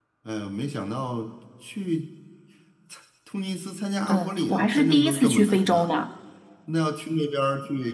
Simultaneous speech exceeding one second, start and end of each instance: 4.1-5.9

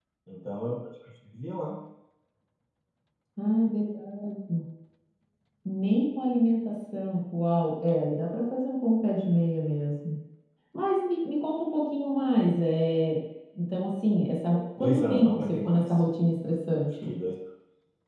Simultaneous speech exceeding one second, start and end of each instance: 14.8-16.0

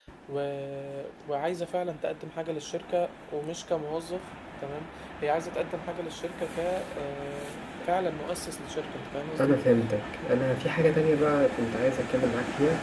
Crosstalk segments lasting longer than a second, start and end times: none

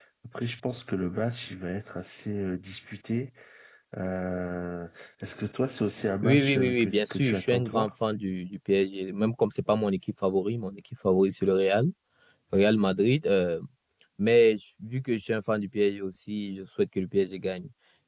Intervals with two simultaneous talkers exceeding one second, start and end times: 6.2-7.9

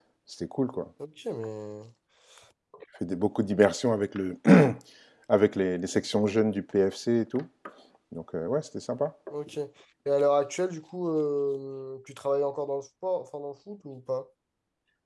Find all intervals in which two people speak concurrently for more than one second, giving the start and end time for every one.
none

